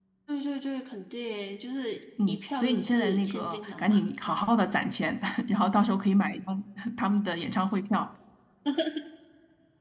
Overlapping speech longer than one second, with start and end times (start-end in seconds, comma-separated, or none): 2.3-4.0